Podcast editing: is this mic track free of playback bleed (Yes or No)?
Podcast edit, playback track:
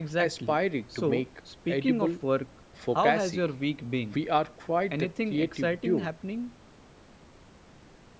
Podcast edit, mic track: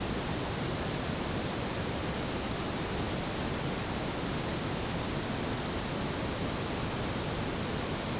Yes